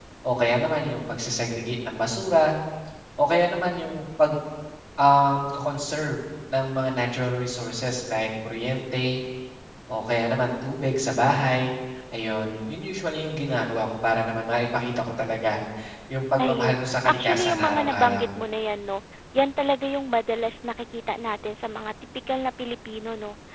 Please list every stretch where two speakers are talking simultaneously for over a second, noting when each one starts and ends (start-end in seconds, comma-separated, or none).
16.4-18.3